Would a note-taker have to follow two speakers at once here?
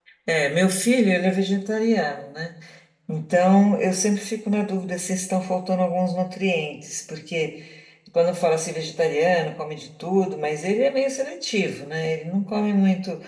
No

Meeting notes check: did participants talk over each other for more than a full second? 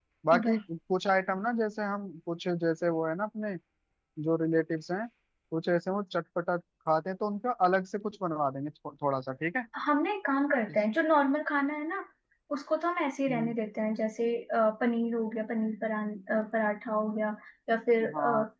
No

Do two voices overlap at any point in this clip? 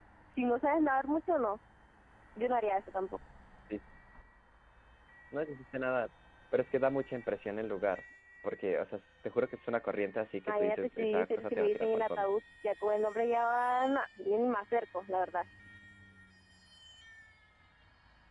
Yes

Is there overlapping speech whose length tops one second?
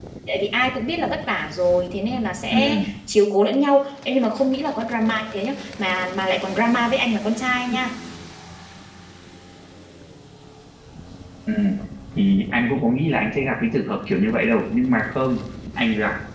No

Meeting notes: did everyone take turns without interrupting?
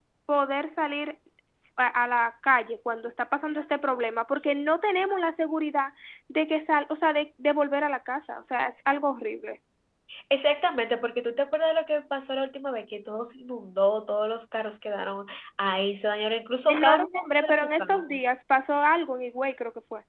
No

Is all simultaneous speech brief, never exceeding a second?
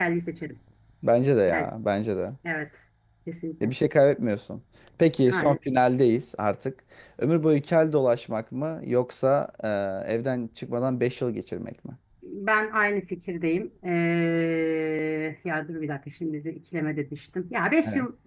Yes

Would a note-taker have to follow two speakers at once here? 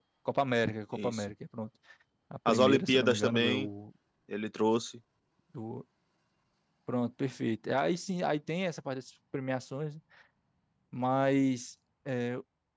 Yes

